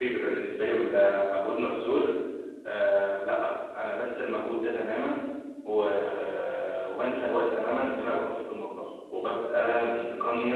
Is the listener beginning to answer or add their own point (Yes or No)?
No